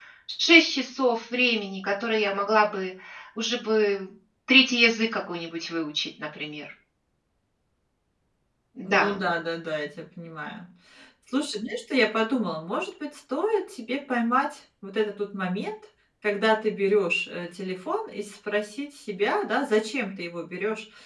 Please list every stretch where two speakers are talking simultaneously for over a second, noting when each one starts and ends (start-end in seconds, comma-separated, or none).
none